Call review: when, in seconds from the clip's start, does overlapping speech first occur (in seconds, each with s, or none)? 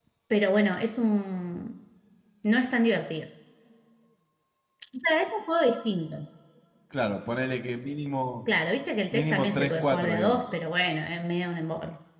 9.1 s